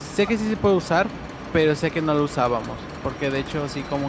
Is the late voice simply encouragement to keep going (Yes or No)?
Yes